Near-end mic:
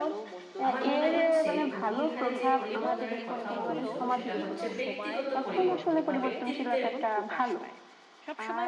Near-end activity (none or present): present